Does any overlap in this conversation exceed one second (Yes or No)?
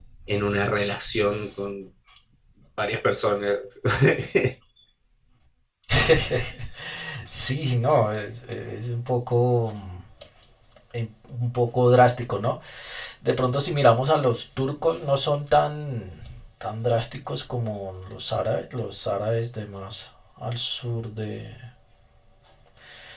No